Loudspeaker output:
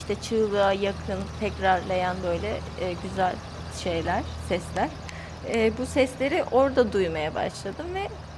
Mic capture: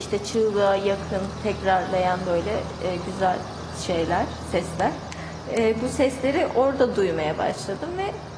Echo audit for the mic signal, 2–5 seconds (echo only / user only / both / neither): echo only